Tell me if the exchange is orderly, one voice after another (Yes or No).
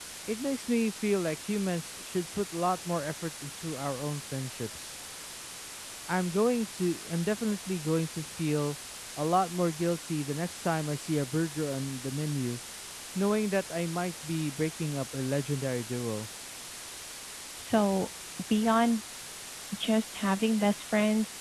Yes